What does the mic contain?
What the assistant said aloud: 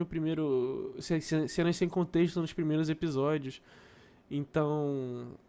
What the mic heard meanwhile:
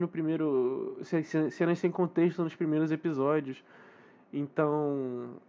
echo only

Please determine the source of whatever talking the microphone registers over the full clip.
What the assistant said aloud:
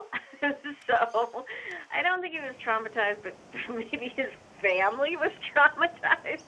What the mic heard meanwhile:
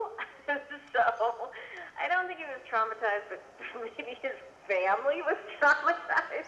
echo only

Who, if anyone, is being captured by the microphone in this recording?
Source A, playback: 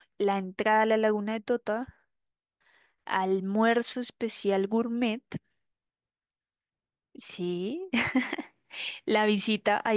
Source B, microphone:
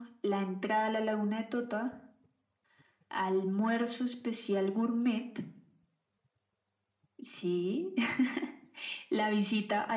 echo only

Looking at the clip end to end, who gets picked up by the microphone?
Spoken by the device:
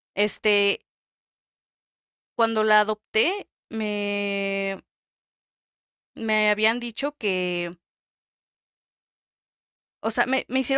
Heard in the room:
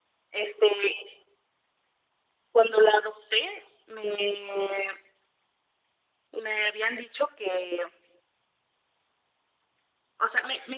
echo only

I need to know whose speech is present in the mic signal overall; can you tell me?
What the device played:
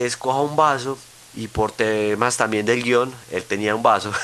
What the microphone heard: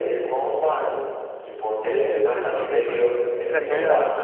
both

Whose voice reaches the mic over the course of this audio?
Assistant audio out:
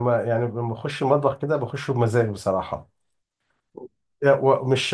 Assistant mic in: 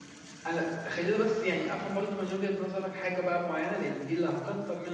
user only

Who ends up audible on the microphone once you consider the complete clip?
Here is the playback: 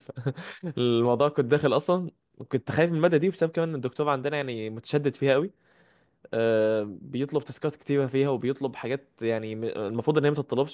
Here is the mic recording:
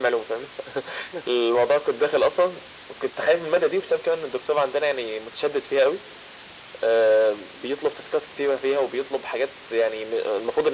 echo only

